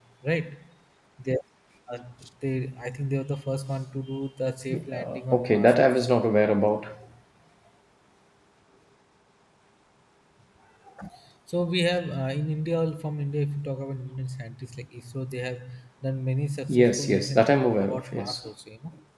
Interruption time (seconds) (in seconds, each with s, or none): 4.7 s